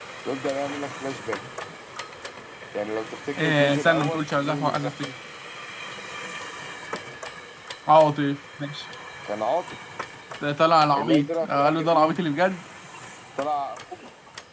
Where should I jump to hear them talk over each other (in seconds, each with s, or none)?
3.4 s